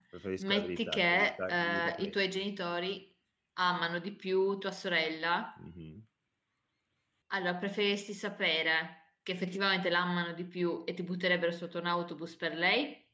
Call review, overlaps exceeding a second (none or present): present